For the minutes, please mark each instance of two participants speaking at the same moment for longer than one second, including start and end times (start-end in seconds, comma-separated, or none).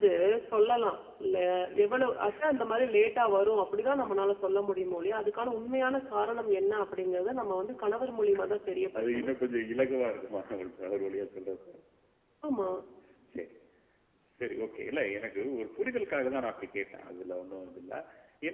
none